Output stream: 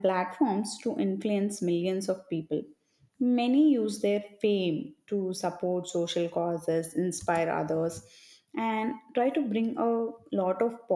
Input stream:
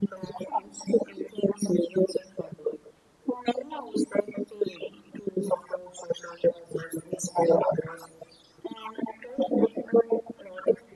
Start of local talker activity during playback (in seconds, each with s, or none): none